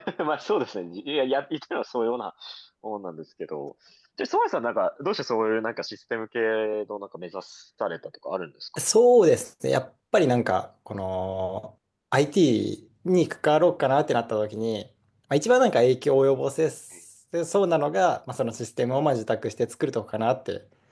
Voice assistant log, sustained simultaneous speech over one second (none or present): none